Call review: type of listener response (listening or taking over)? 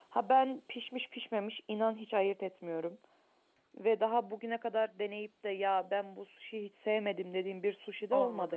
taking over